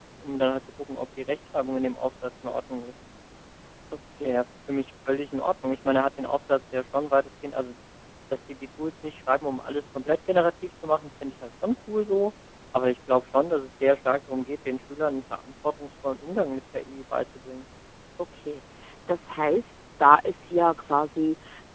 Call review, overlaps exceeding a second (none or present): none